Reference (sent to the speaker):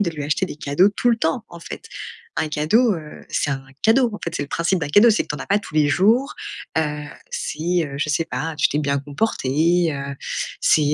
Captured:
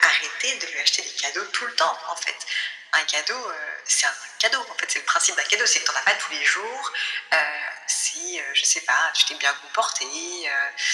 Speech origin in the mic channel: echo only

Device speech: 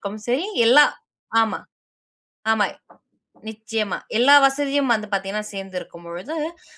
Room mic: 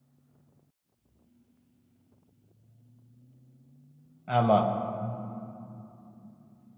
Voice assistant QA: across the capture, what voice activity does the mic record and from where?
user only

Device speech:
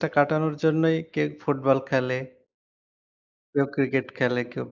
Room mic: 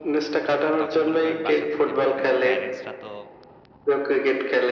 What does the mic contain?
both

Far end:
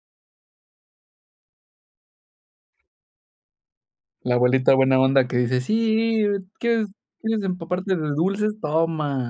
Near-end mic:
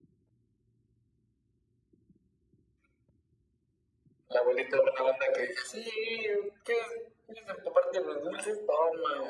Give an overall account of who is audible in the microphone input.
echo only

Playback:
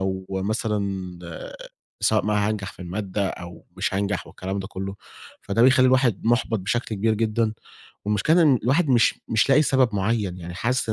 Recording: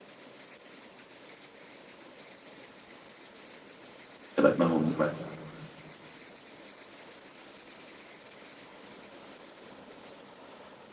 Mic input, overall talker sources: user only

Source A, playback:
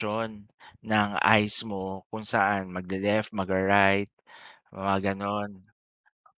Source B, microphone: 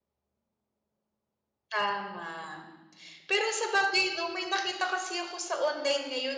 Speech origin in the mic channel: user only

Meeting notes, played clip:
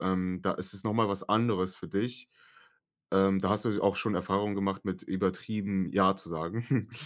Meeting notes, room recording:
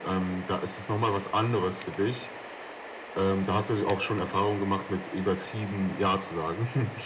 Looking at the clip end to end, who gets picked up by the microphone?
echo only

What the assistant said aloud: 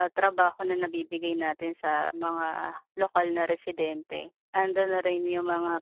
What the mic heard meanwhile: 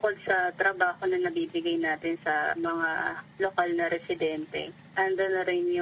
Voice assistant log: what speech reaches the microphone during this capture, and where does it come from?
echo only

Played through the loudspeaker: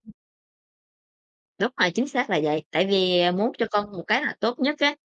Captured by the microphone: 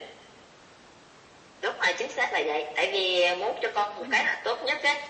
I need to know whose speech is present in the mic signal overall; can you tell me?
both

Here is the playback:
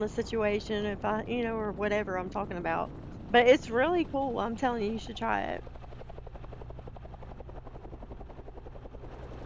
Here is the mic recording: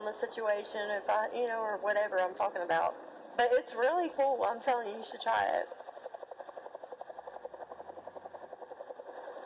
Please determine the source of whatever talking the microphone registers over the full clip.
echo only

